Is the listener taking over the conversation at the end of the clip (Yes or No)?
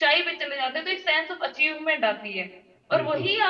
No